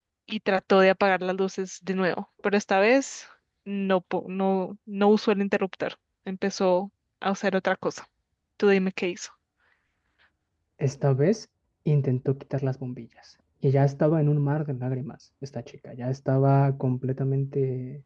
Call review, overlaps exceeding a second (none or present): none